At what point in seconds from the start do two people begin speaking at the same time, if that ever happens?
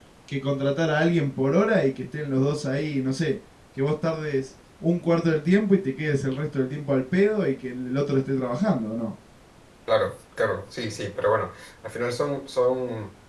none

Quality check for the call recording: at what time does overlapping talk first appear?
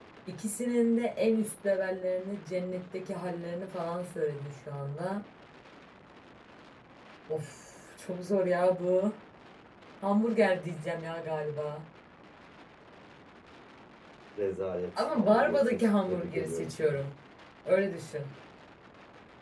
15.0 s

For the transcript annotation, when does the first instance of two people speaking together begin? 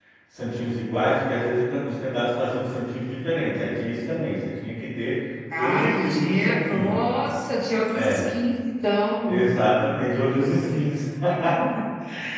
5.6 s

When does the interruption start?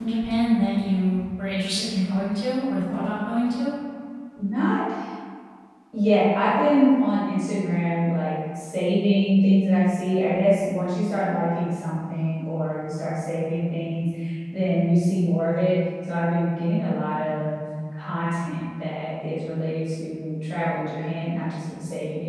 none

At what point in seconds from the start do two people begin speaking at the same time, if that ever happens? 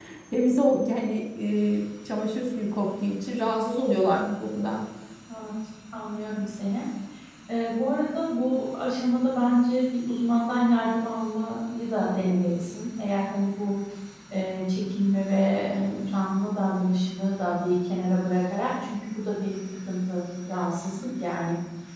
none

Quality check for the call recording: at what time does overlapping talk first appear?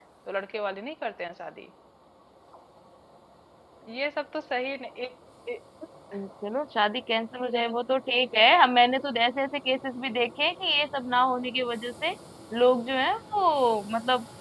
none

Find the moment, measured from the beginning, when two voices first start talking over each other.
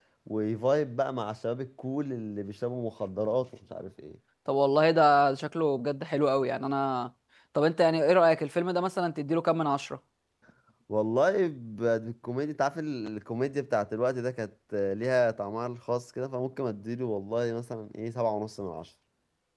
none

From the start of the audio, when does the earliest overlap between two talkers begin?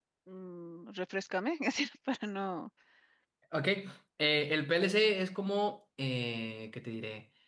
none

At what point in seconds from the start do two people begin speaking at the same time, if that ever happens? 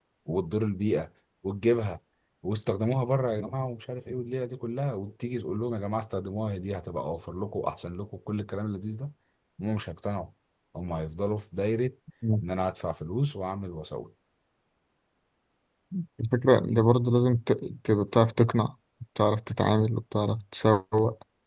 none

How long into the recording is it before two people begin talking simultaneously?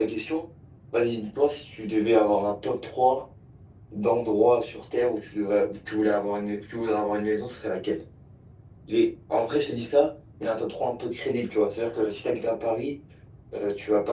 none

